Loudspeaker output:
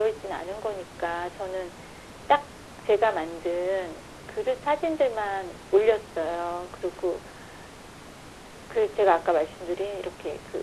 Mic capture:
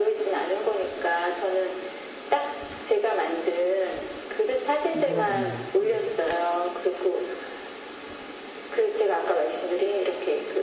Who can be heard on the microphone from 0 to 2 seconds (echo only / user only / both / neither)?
echo only